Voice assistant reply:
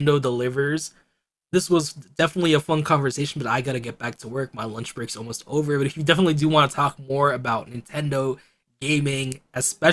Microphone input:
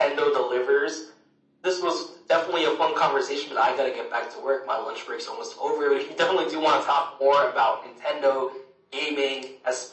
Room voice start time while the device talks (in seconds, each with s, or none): none